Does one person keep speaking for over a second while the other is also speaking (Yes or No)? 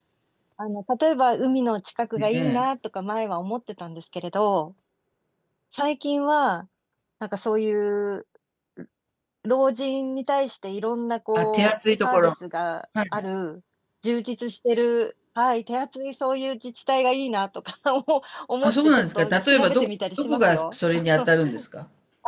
Yes